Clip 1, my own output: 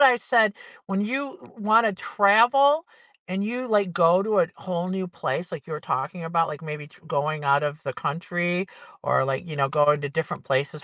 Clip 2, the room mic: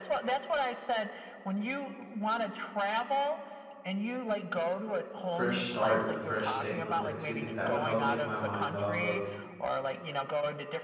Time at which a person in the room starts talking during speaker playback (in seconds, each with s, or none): 5.2 s